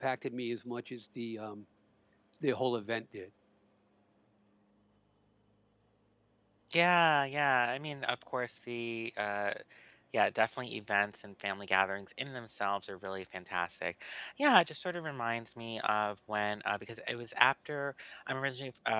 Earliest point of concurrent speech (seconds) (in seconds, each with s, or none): none